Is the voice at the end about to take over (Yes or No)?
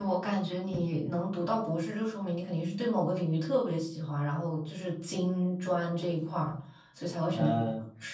Yes